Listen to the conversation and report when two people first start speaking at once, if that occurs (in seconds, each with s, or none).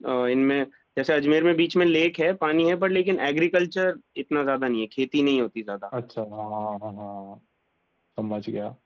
none